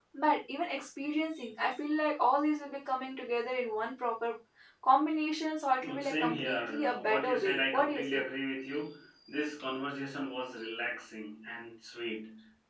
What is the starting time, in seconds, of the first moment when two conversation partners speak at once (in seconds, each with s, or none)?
5.8 s